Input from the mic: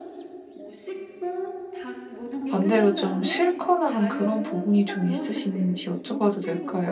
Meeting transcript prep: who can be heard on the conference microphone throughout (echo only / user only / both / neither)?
both